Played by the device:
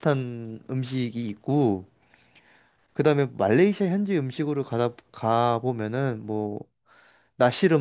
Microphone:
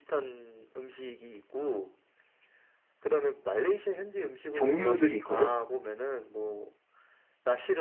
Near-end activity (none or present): present